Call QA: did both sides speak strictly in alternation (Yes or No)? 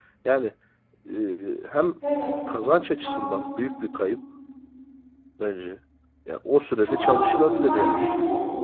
No